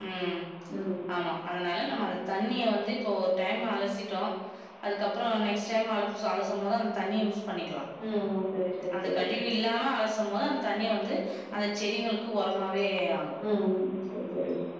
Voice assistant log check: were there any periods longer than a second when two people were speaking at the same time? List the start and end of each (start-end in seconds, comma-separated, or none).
none